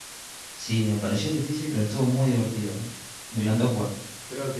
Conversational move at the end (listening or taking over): taking over